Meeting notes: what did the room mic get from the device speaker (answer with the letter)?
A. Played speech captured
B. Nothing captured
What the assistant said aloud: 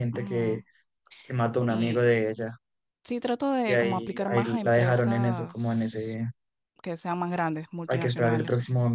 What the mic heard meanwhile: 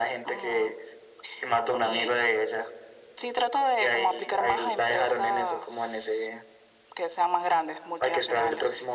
A